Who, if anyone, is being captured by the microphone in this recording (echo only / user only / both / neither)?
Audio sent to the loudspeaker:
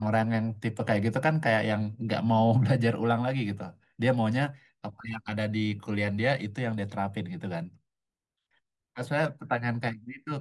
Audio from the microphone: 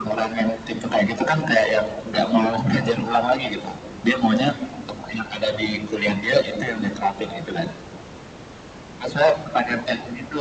echo only